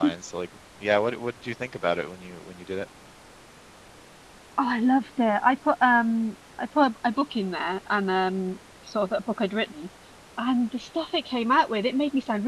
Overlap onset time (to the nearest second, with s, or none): none